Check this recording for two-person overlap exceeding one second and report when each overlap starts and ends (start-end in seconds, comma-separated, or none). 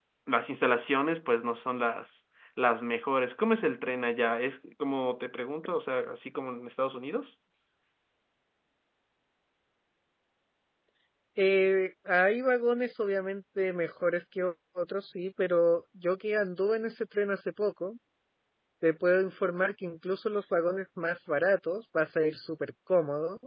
none